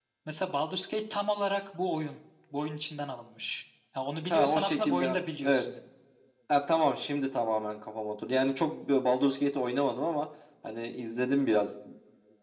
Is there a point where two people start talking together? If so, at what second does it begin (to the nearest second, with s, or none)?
4 s